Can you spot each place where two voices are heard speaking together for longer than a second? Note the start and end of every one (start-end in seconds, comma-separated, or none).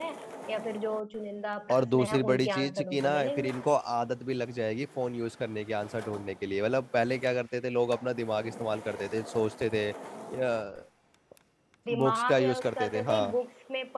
1.7-3.5, 12.0-13.3